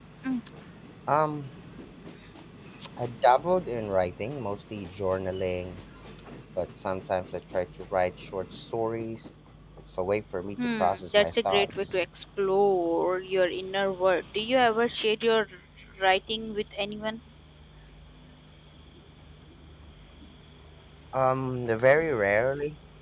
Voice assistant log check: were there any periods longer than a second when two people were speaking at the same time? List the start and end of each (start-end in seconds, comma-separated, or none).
10.6-12.0